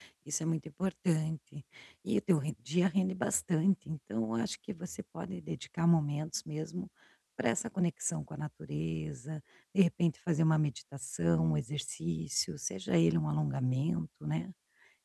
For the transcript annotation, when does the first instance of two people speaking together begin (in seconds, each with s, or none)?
none